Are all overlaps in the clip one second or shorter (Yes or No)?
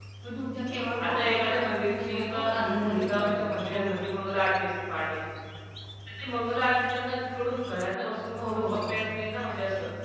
No